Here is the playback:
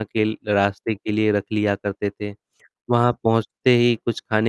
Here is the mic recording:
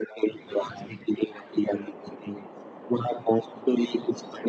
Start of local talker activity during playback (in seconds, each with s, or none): none